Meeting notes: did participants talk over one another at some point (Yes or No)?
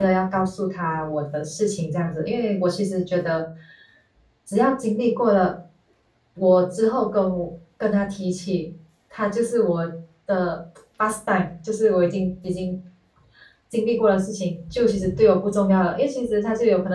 No